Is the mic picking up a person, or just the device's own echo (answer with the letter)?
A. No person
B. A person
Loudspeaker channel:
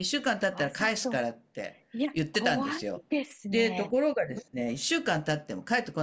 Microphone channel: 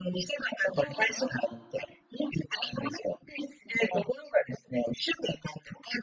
B